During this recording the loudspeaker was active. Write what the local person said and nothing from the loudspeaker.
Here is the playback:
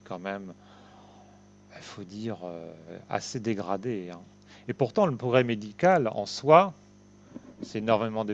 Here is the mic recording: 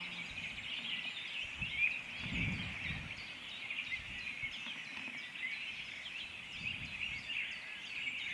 none

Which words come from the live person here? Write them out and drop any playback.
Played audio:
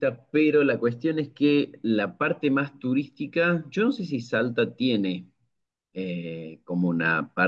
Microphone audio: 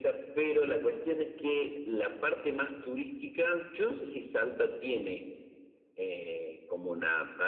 none

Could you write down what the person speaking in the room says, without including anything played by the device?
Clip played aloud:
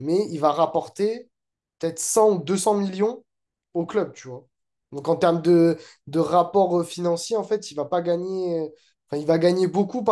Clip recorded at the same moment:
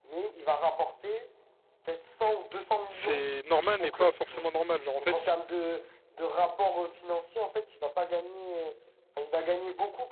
c'est normal, mais pas forcément normal. Genre, en fait, c-

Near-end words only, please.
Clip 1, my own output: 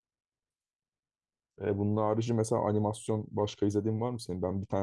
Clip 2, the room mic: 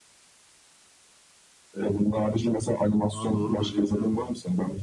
Aa, doğrudur bilmiyorum onu.

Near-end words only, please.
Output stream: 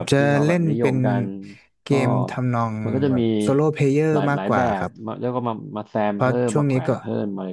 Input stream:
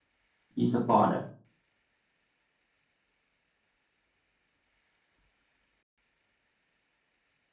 e สปอร์ตอ่ะ

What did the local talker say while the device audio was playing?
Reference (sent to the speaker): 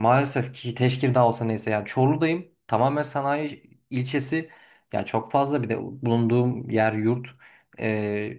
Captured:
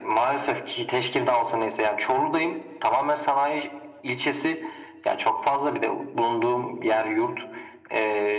none

